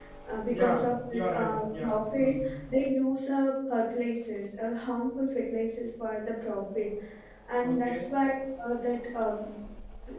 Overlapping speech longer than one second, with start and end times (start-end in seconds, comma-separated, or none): 0.5-2.5